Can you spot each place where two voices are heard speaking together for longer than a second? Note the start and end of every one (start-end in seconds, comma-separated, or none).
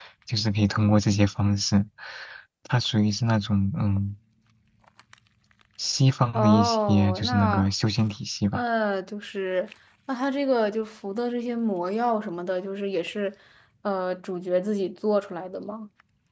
6.3-7.7